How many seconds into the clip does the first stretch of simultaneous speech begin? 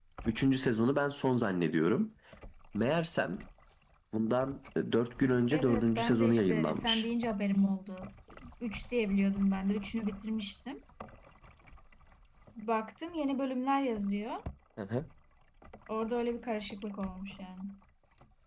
5.5 s

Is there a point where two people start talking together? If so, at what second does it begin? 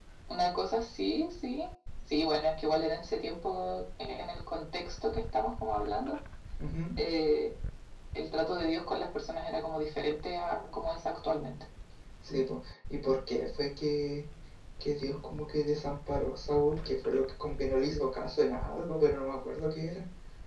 none

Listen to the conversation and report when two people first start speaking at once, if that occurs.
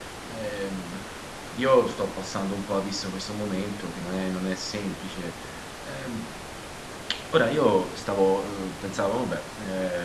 none

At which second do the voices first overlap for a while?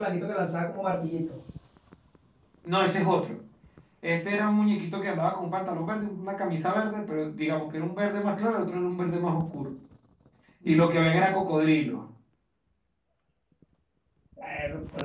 none

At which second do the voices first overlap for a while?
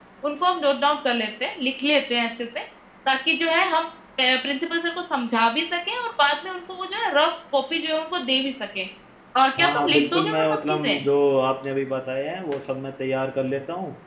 9.6 s

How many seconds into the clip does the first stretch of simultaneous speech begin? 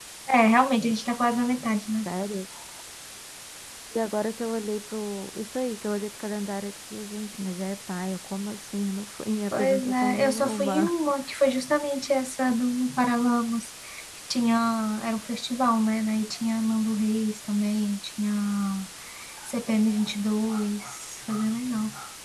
9.5 s

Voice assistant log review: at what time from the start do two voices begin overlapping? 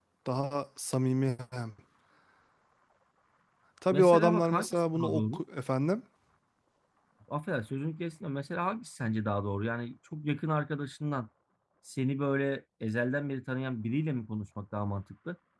3.9 s

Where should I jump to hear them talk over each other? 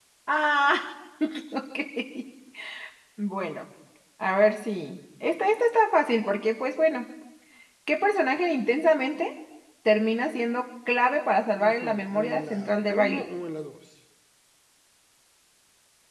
11.6 s

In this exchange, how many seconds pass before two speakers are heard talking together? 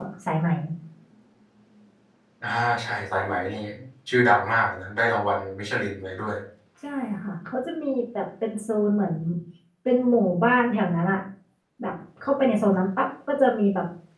none

